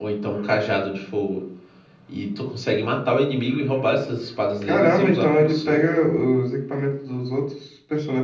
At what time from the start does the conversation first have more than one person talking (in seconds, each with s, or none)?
4.6 s